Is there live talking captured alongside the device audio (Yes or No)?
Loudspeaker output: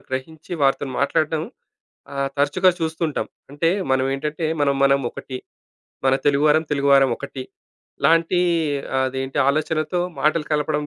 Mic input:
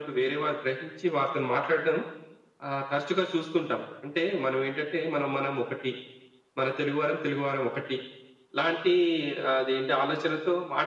No